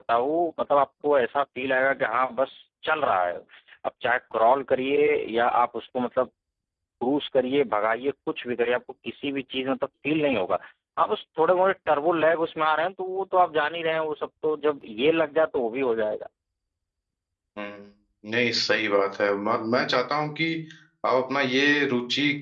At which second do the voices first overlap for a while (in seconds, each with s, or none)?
none